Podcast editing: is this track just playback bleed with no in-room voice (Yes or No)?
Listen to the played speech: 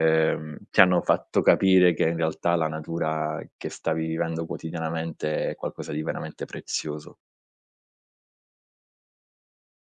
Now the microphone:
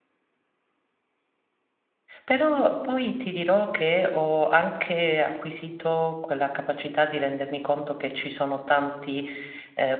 No